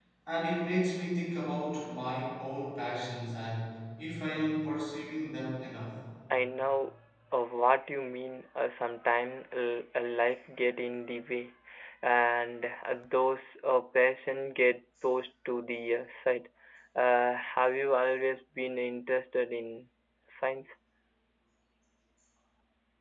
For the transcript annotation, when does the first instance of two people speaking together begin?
none

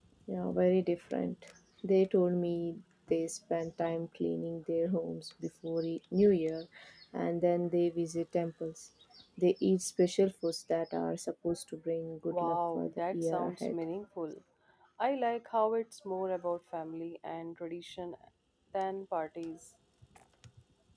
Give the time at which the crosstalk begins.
12.3 s

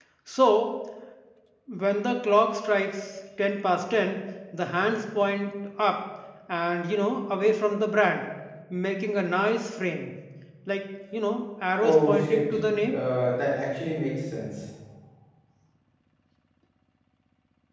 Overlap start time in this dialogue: 11.8 s

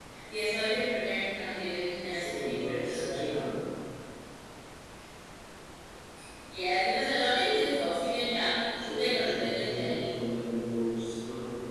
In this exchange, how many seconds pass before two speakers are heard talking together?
2.1 s

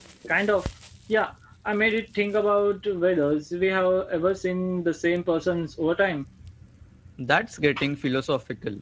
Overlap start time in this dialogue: none

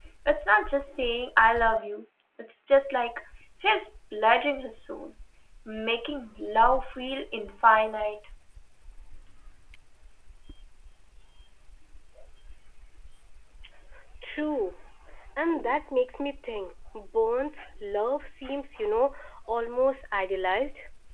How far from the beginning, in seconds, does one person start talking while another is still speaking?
none

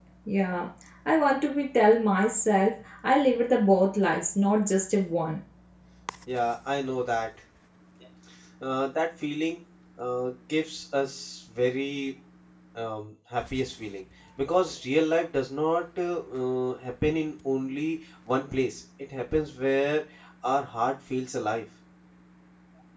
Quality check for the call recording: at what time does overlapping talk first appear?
none

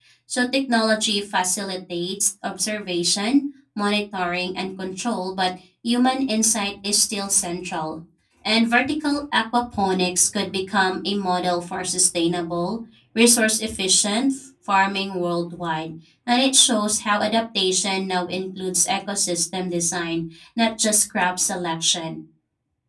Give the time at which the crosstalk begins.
none

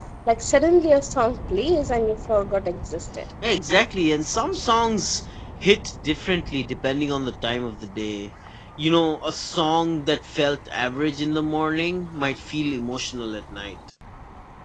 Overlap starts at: none

